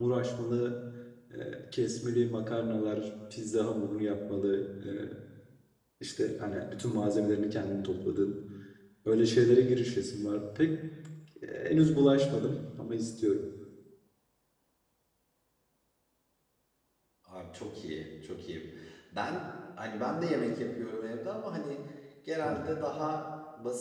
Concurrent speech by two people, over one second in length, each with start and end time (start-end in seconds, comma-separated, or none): none